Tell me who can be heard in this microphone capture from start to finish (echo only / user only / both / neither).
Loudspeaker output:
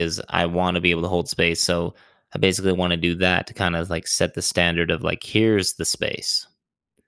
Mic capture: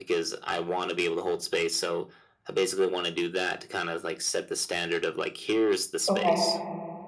both